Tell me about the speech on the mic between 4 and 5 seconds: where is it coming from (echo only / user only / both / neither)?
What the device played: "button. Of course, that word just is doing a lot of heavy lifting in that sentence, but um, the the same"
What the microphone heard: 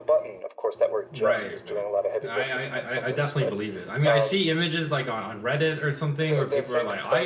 both